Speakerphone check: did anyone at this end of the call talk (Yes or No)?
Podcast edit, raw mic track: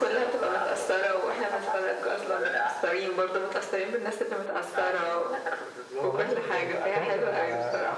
Yes